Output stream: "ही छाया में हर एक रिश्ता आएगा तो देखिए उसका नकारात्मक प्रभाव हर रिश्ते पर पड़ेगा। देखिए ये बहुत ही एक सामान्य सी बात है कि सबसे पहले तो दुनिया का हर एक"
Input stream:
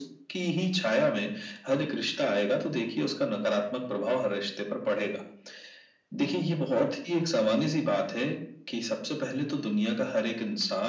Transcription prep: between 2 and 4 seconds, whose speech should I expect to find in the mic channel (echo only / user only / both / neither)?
echo only